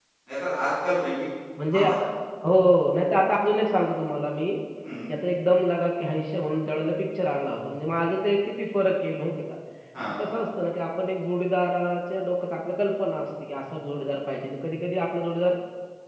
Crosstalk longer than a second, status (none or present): none